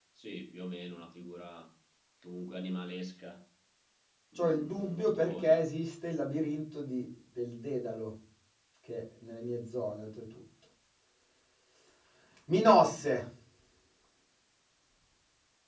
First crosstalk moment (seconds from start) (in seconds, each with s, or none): 4.4 s